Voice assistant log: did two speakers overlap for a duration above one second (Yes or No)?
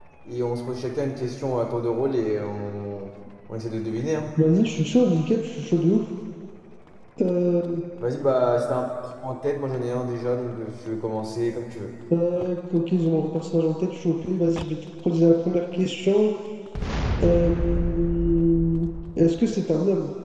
No